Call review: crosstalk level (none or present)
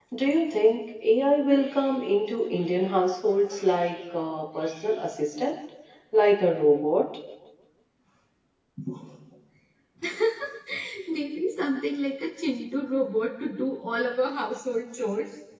none